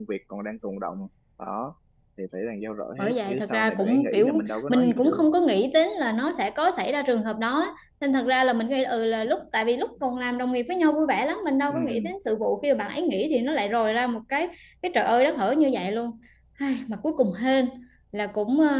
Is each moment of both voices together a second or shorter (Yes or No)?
No